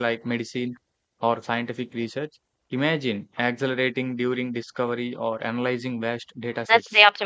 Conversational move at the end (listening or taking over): taking over